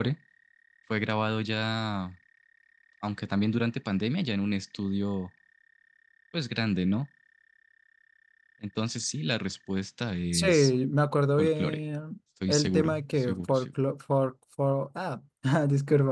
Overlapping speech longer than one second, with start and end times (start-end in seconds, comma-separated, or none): 12.5-13.7